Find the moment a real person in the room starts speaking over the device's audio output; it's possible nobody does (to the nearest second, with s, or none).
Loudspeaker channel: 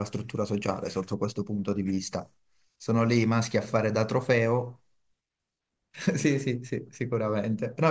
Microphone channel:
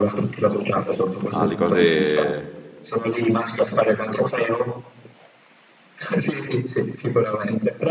1 s